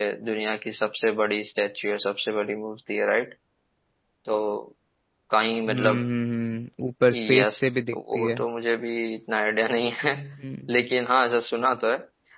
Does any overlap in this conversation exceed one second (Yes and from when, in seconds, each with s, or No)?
No